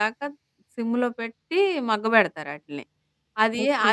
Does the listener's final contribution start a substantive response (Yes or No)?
No